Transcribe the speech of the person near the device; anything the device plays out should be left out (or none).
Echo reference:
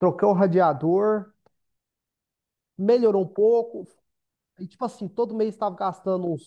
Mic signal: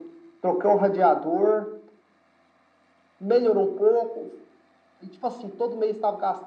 none